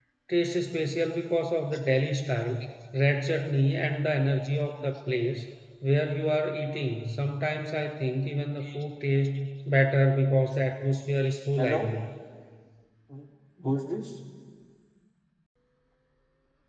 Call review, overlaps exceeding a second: none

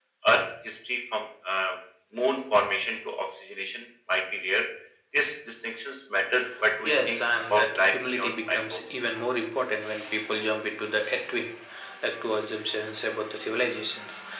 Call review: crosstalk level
present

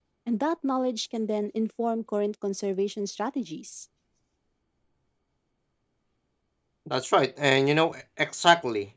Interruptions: none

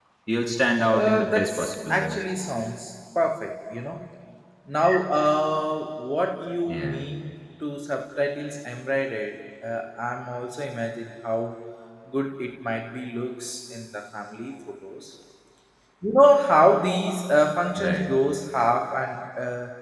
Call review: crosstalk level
present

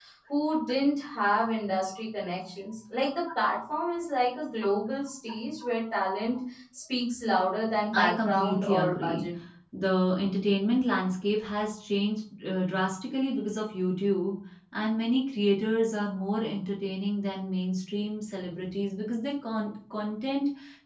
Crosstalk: present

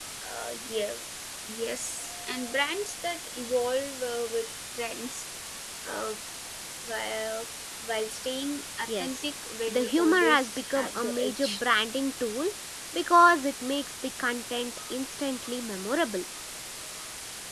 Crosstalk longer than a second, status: present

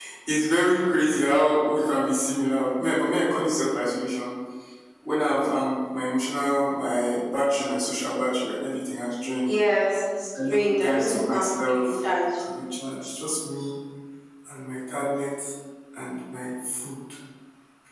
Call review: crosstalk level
present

